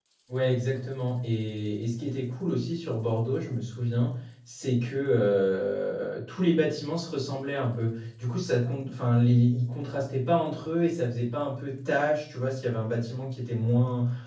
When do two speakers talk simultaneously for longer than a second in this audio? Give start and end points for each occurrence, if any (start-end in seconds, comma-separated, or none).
none